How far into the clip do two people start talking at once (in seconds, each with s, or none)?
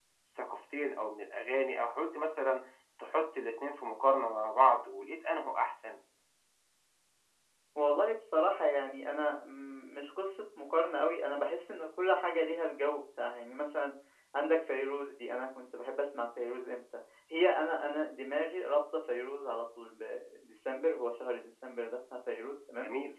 none